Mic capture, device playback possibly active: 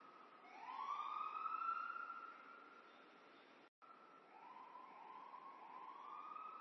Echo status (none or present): none